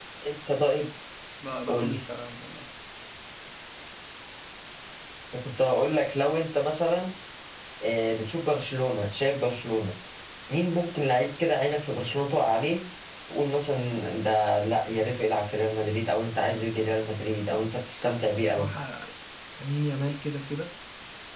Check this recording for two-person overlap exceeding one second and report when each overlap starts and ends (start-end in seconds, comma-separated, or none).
none